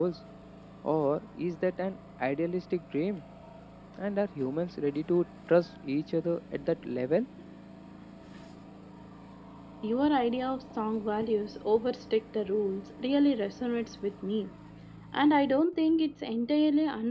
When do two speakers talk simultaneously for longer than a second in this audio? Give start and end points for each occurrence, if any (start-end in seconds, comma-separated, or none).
none